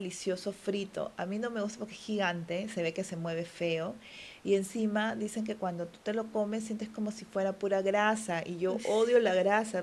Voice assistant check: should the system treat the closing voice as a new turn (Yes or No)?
No